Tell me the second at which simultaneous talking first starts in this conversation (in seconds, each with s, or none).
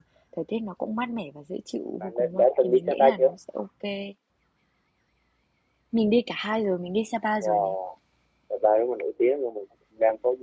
2.0 s